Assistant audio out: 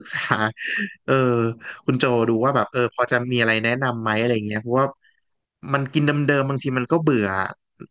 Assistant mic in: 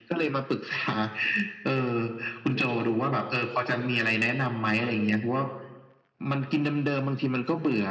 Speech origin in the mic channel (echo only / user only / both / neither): echo only